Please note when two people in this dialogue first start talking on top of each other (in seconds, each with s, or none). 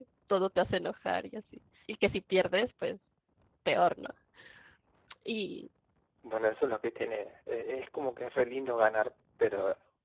none